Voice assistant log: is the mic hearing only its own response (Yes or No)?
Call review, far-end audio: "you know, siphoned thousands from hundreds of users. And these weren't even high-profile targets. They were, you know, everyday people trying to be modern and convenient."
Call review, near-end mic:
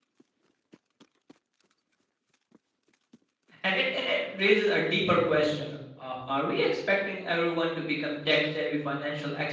No